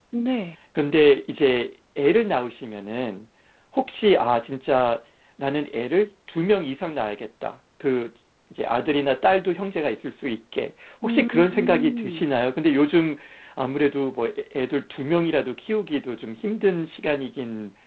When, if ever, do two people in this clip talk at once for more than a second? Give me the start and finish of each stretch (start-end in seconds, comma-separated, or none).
11.0-12.2